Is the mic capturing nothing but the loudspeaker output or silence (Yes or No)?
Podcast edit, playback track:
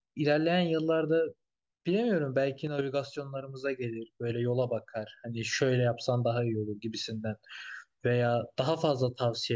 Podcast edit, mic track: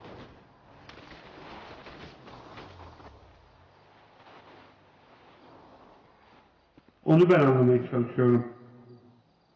No